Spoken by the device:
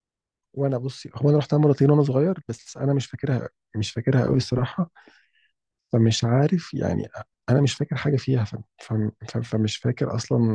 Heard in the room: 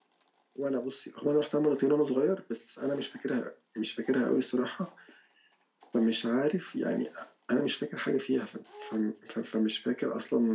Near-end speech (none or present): none